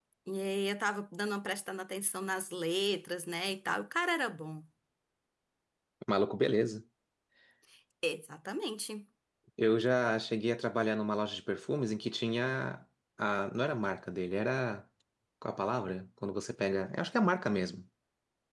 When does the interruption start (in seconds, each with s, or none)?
none